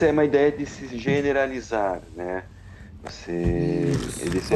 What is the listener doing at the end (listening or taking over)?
taking over